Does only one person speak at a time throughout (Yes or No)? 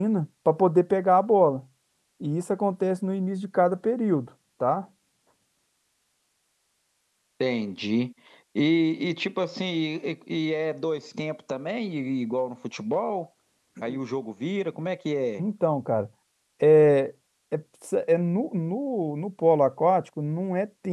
Yes